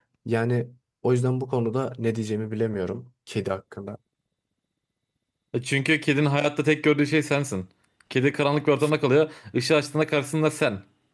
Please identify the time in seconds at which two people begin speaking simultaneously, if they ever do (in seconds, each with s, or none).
none